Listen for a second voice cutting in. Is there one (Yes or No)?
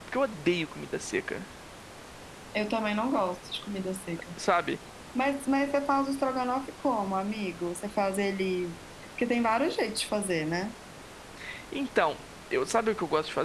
No